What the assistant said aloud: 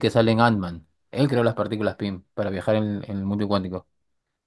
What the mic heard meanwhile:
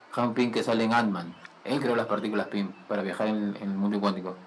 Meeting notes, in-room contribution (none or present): none